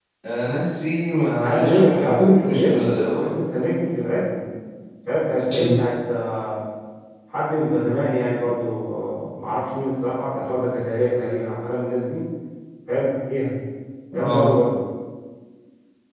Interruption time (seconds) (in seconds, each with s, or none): 1.3 s